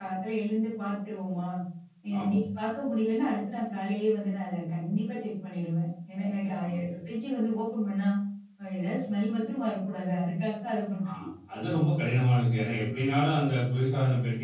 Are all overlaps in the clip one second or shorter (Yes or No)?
Yes